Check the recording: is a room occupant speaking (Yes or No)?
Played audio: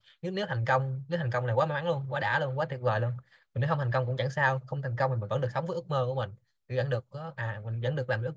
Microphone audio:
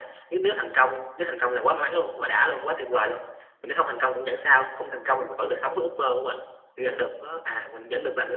No